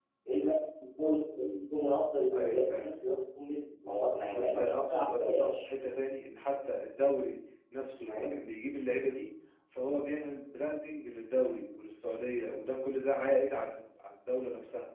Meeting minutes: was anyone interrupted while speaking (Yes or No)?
Yes